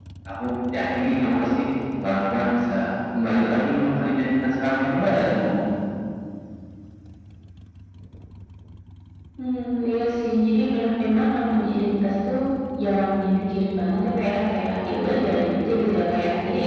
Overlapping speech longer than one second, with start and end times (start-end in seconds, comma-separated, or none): none